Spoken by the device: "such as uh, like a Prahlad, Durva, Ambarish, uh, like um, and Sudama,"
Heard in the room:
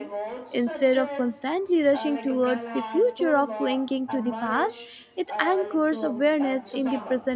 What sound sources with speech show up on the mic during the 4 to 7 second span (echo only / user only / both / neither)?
both